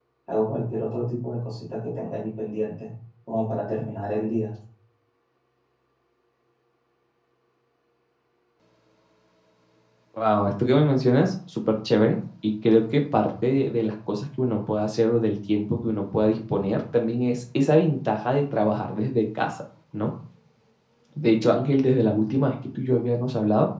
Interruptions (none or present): none